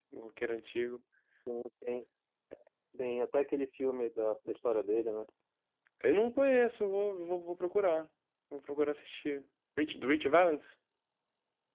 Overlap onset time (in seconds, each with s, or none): none